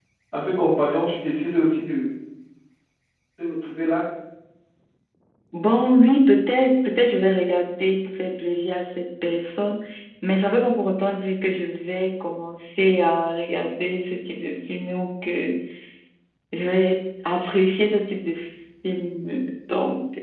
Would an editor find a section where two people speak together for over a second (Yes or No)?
No